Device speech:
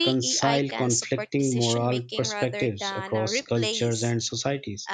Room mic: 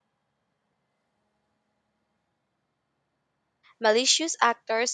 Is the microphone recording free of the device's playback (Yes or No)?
Yes